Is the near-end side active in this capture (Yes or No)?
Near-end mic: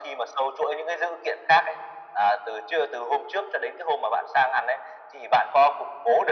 No